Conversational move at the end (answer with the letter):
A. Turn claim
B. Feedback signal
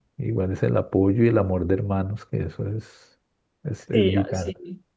A